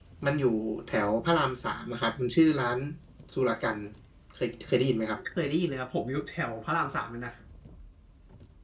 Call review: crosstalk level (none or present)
none